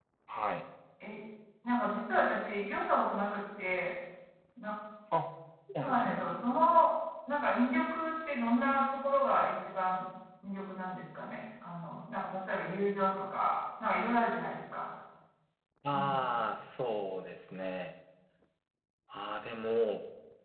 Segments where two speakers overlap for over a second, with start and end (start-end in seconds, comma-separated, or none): none